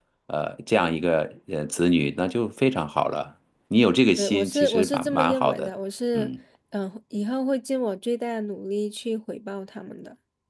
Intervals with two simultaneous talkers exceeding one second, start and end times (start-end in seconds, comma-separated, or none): 4.2-5.7